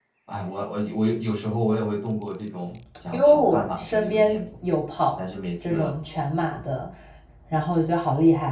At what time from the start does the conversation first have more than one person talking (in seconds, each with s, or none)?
3.1 s